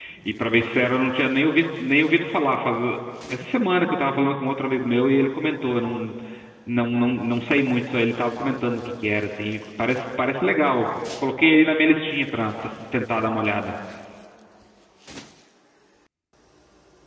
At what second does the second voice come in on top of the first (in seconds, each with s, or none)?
none